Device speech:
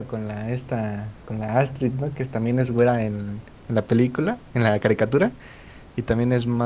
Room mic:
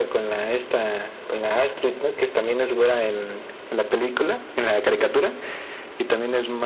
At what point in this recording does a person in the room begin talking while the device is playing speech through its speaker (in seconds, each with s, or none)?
none